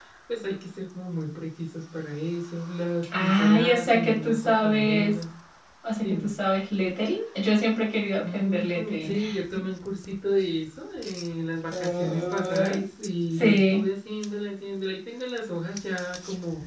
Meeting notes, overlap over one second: present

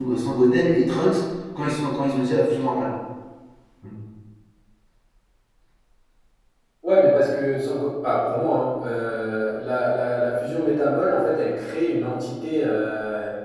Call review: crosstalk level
none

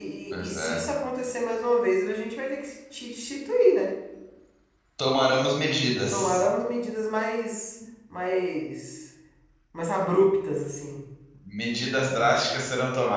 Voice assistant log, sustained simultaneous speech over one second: none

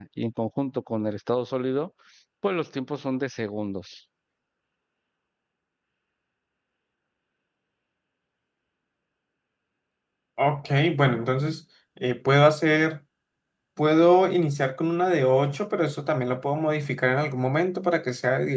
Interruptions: none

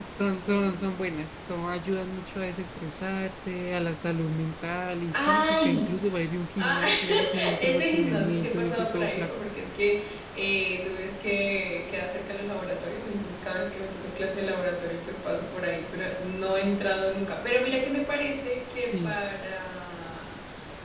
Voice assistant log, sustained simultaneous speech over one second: present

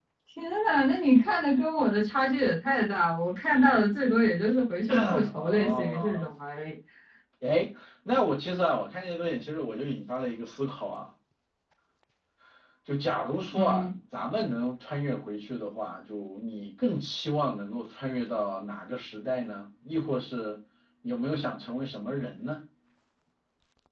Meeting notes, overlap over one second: present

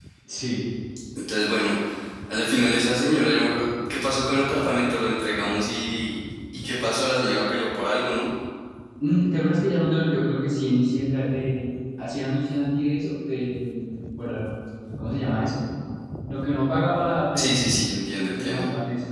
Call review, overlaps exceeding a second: none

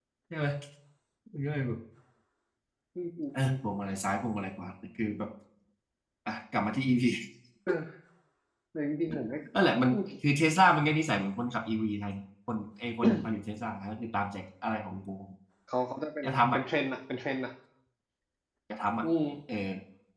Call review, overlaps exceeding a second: none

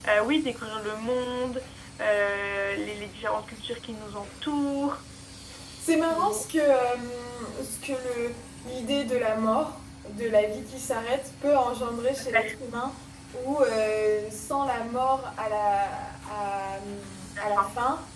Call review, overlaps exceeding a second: none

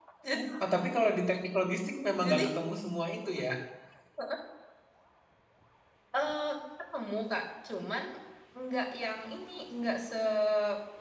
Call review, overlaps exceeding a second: none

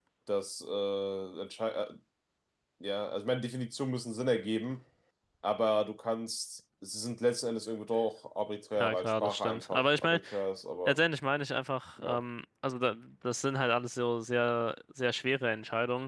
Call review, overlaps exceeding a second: present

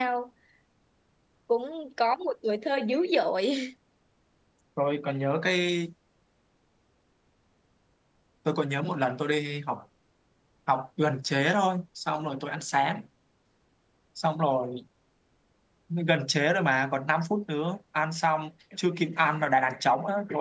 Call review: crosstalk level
none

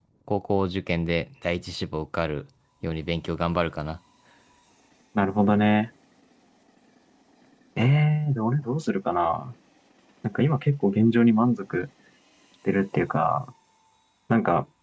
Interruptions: none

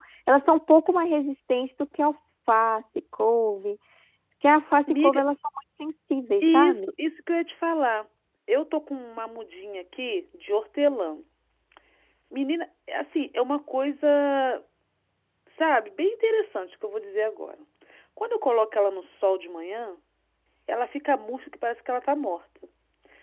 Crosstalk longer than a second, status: none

